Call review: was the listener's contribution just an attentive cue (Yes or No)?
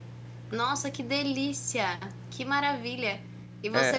Yes